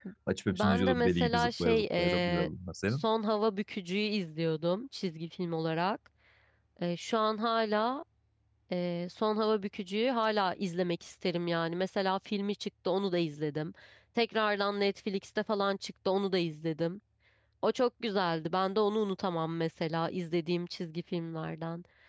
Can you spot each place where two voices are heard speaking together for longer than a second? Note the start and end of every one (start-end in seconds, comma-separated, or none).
0.5-2.5